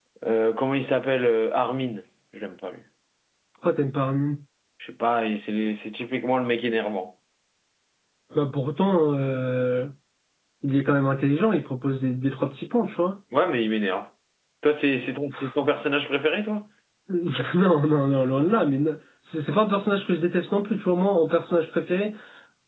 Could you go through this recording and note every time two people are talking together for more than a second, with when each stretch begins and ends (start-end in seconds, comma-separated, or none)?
none